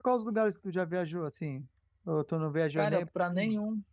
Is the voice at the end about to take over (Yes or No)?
Yes